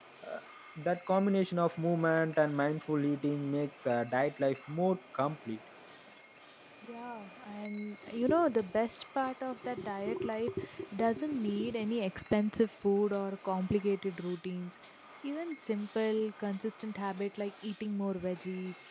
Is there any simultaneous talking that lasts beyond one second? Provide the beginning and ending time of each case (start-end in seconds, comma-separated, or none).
none